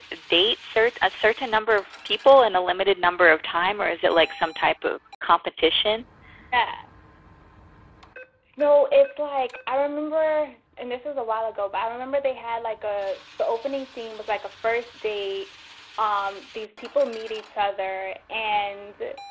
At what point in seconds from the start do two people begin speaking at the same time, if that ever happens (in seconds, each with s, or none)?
none